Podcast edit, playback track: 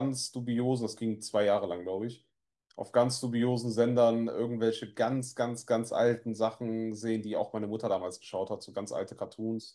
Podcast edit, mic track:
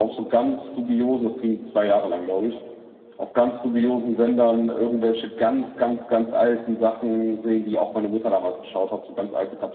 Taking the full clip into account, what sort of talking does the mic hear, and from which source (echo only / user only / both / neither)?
echo only